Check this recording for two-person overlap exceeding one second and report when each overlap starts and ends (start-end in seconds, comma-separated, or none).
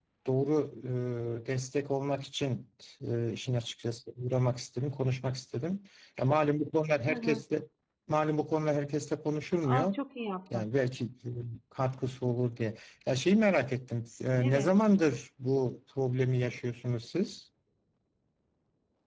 none